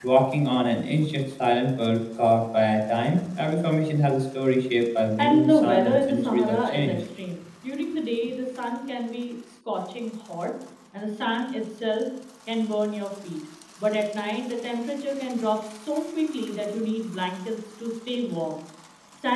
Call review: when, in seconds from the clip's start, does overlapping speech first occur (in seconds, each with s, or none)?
5.2 s